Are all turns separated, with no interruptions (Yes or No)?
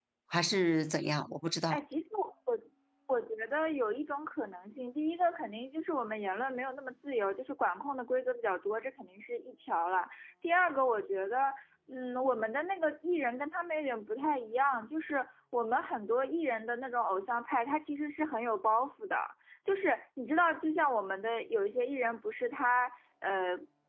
Yes